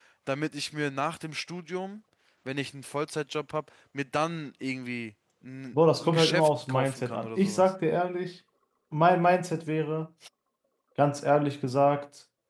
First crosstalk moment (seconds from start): 6.0 s

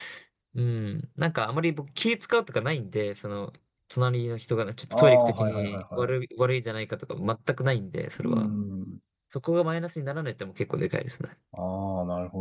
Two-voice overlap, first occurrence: 4.9 s

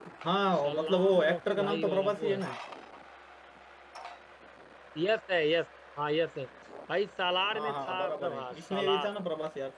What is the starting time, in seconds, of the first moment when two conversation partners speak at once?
0.6 s

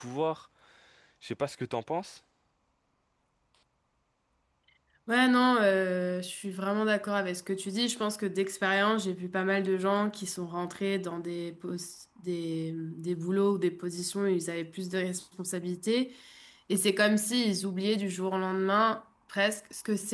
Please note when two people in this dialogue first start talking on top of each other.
none

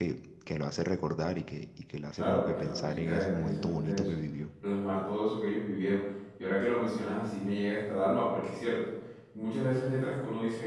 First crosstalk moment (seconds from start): 2.2 s

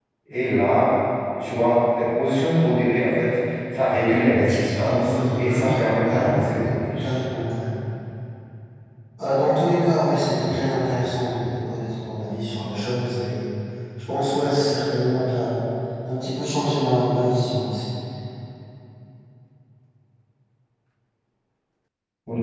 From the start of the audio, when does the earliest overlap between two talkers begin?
4.5 s

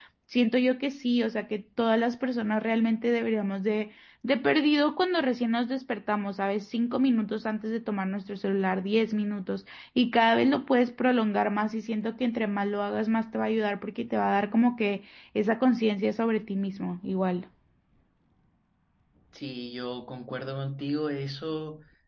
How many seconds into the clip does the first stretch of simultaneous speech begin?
none

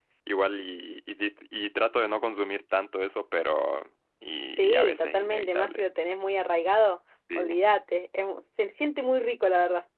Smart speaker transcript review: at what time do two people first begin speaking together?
4.5 s

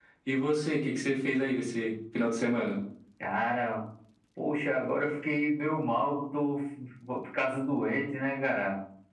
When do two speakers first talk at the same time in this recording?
none

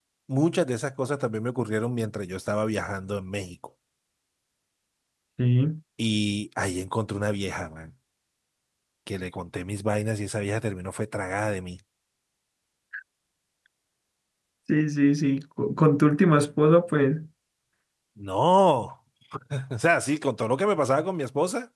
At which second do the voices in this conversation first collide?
none

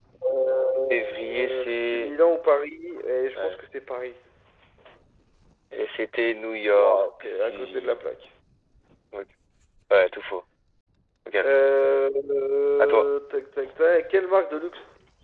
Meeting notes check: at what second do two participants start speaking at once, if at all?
0.8 s

